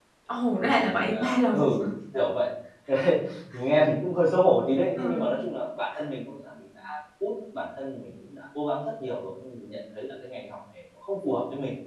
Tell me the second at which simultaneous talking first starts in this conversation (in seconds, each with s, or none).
0.6 s